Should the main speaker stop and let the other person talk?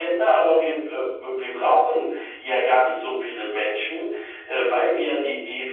No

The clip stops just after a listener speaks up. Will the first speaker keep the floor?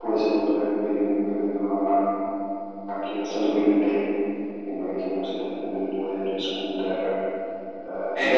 Yes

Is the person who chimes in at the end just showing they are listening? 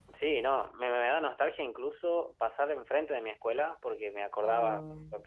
Yes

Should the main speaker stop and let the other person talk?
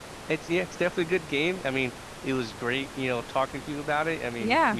No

